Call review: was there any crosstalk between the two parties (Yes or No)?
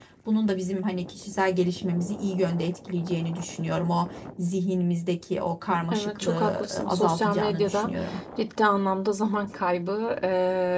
Yes